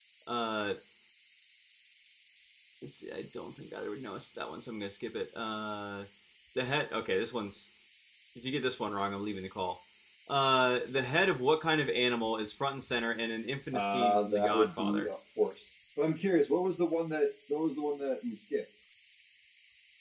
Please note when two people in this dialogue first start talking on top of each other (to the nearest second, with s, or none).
14 s